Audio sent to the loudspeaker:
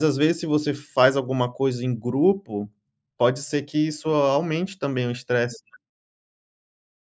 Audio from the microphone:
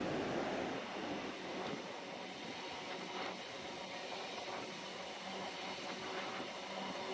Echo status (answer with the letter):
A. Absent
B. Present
A